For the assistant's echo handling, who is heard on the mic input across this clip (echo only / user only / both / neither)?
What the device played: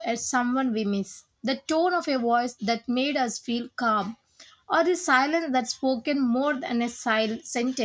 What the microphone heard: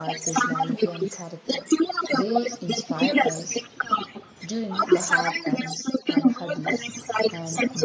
both